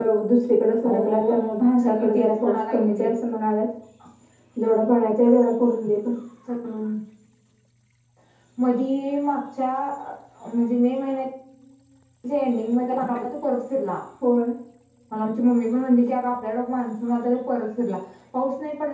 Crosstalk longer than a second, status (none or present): present